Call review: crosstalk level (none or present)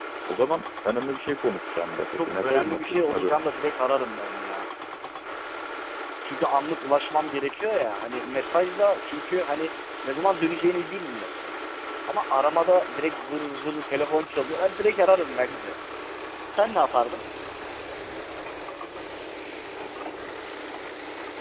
present